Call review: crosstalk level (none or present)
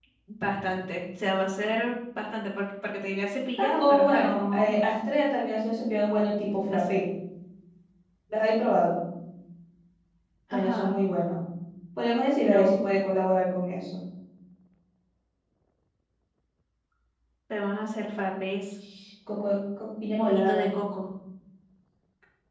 present